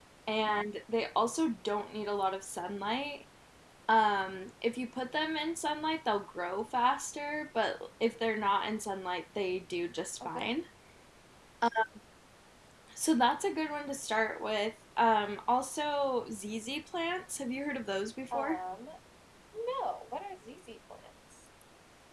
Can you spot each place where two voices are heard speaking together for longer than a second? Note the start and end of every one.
none

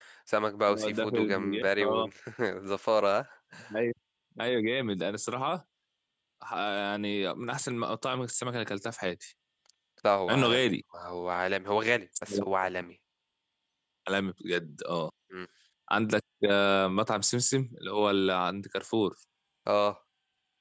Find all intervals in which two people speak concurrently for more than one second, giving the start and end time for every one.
0.7-2.1

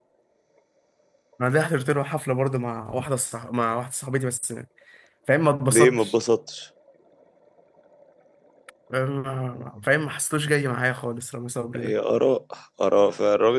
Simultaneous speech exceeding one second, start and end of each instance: none

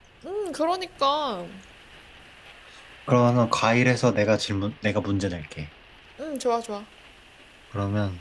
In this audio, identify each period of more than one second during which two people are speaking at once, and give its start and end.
none

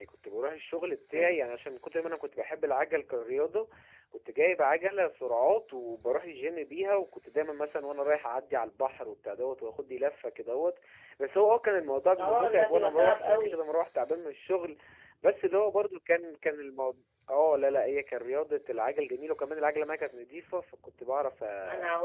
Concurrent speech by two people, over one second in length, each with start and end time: 12.2-13.6

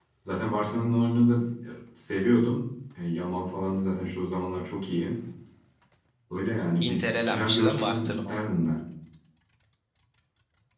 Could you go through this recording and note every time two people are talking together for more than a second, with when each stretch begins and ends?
6.8-8.4

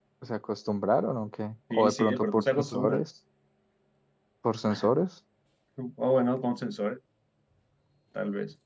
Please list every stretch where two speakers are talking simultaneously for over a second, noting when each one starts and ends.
1.7-3.0

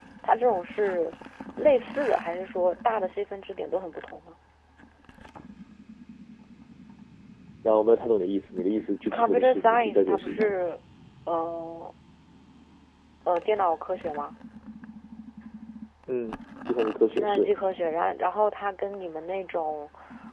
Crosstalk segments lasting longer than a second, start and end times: 9.1-10.5

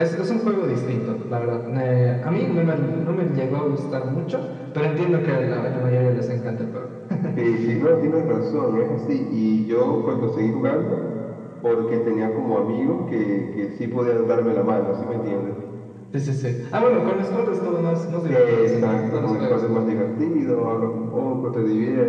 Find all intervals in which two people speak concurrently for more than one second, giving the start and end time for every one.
18.3-19.6

